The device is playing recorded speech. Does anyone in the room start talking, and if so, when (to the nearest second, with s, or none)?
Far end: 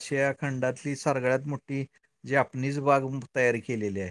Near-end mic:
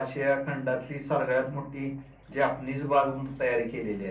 none